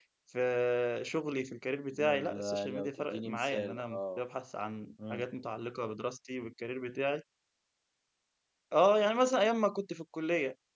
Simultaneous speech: Yes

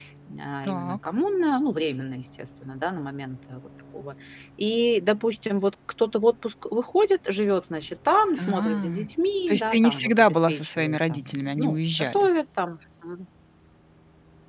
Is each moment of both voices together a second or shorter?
No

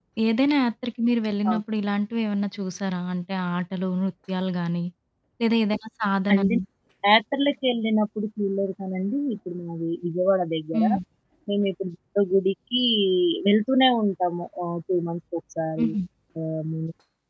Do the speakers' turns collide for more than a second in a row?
No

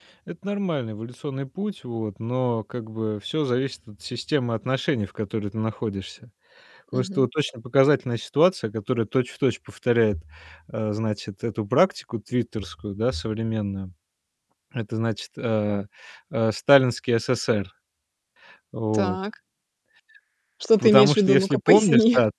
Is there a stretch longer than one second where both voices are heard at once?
Yes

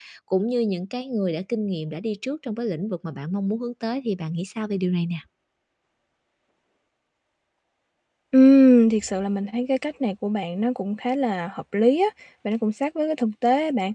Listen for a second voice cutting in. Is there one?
No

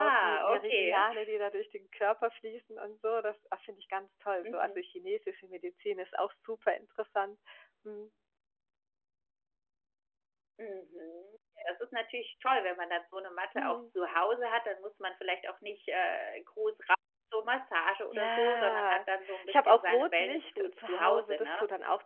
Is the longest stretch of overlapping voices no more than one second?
No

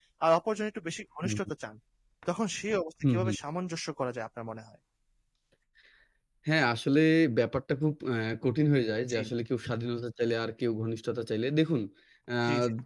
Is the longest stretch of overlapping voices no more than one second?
Yes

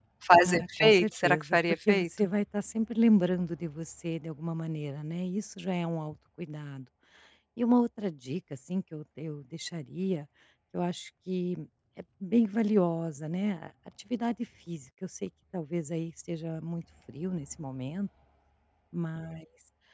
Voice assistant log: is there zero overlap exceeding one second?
No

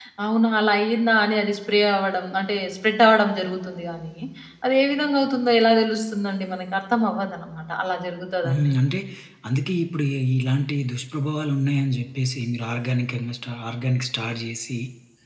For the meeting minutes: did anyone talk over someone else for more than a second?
No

